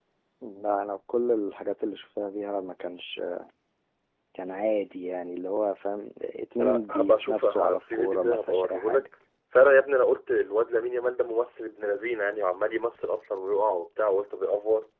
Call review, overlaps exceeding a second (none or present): present